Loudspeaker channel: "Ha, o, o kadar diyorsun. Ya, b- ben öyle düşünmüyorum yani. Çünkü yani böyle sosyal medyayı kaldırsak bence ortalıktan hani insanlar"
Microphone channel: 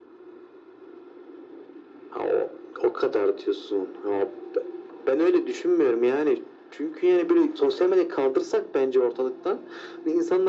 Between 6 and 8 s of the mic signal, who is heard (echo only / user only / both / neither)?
echo only